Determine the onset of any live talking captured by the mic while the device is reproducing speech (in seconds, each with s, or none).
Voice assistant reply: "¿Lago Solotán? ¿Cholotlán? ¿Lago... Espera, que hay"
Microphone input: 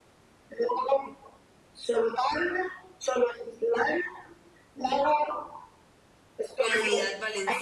6.6 s